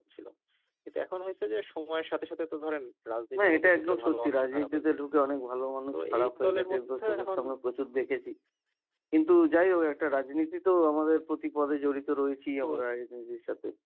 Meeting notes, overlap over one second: present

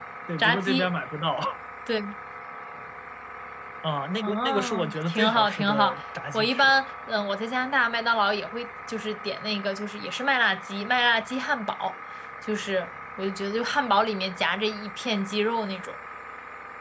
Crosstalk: present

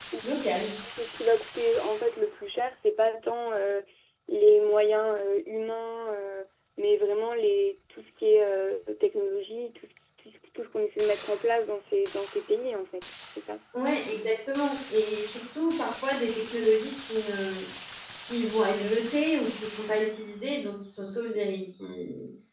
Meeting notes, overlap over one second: none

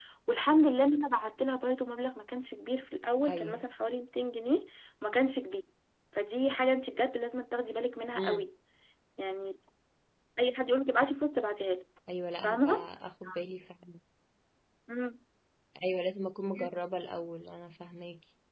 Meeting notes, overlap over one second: none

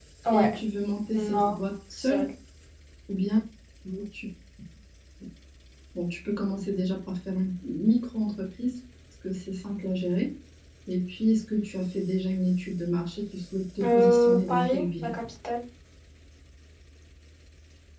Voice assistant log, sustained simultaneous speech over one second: present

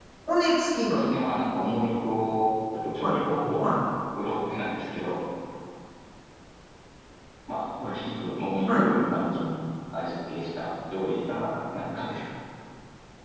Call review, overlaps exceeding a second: none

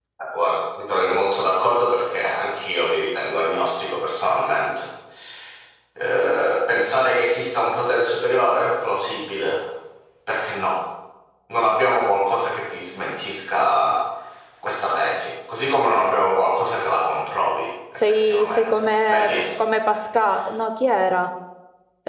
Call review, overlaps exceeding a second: present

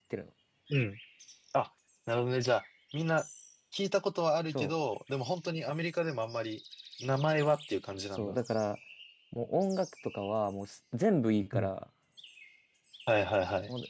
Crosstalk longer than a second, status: none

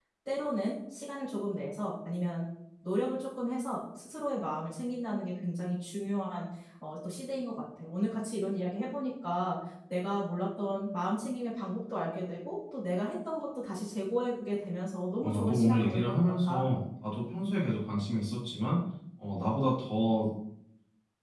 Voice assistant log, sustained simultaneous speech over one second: present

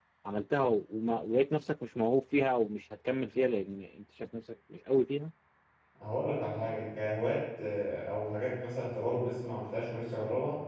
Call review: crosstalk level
none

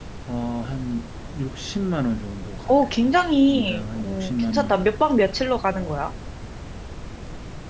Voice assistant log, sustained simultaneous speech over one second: present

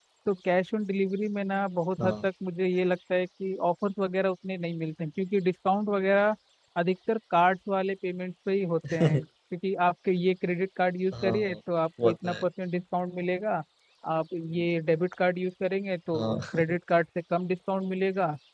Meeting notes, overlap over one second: none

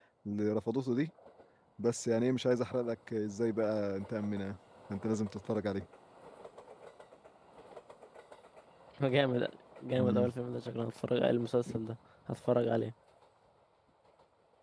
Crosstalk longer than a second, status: none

